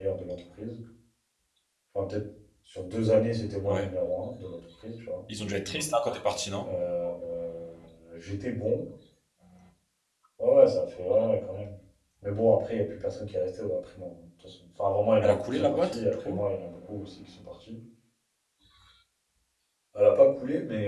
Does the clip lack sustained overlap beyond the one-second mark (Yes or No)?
No